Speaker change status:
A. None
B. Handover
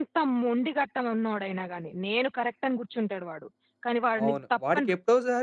B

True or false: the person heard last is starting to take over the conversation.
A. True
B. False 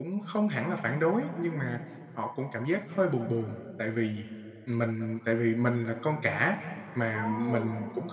B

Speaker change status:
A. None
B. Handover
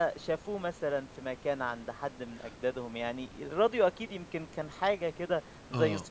B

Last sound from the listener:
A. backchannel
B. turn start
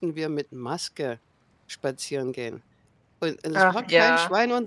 A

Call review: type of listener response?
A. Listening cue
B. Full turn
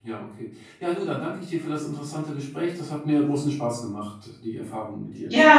B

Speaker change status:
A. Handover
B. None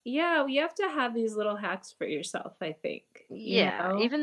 A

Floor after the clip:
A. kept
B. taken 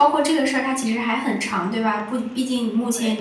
A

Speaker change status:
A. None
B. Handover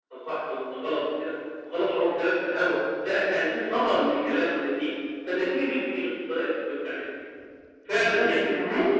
B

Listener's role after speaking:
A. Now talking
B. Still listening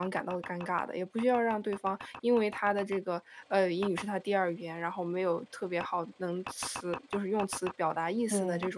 B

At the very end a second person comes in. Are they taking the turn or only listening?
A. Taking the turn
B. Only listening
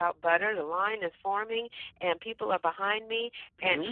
B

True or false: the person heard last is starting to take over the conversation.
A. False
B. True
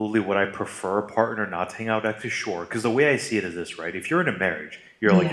A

